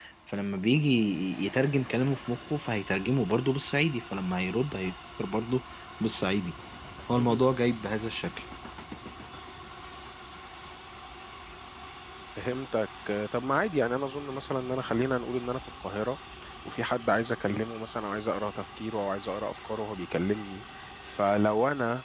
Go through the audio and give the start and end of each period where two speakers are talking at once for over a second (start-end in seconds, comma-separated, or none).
none